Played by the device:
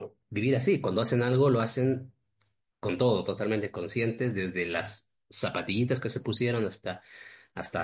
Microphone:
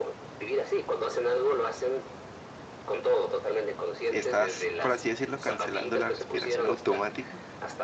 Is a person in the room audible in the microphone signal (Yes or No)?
Yes